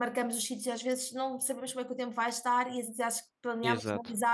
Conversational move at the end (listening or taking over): listening